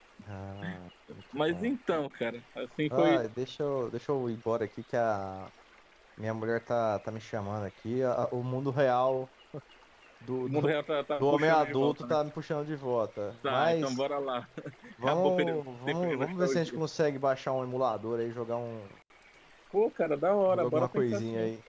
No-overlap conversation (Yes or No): No